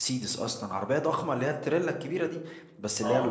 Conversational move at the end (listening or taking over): listening